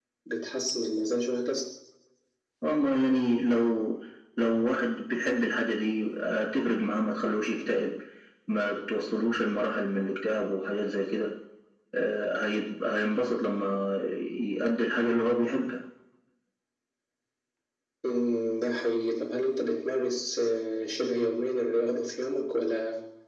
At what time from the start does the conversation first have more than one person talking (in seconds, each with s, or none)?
none